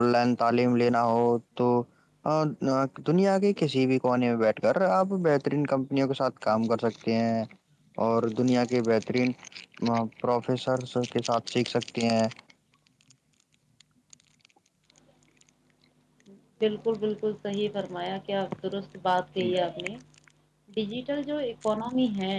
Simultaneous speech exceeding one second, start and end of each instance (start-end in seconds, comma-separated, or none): none